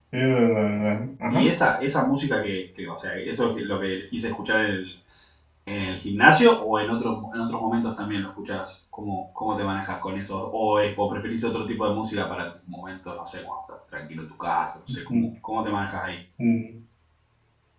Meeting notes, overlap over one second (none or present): none